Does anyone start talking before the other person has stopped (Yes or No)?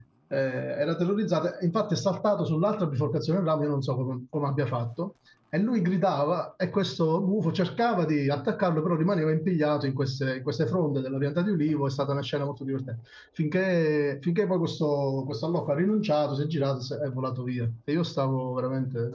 No